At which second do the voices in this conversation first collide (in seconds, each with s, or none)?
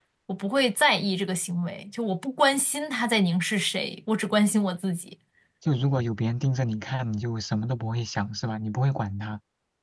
none